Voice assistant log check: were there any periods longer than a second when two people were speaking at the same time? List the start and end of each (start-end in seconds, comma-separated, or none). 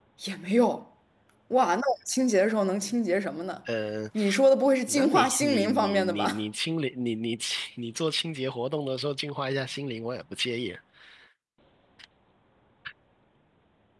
4.9-6.4